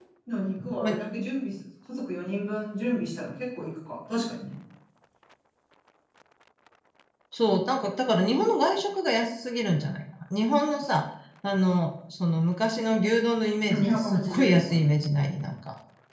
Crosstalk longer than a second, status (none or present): present